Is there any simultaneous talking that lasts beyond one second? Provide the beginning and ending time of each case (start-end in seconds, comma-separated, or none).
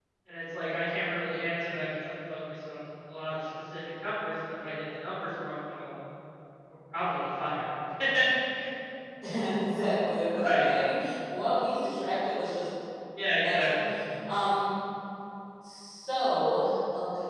none